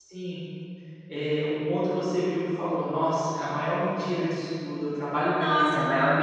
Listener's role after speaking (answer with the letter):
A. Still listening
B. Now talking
B